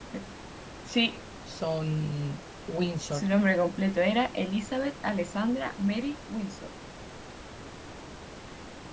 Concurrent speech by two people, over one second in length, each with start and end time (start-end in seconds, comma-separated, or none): none